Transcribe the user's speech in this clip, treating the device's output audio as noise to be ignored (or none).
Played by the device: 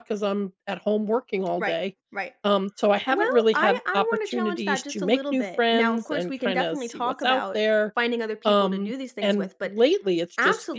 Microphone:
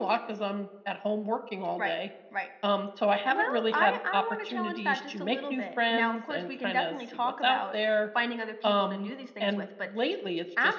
none